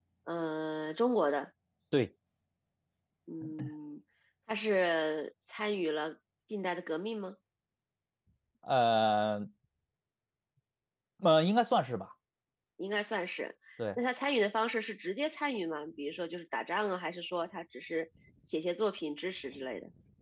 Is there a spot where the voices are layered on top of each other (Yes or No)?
No